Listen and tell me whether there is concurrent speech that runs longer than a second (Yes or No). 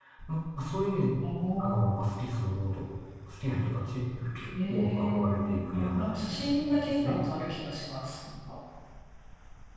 Yes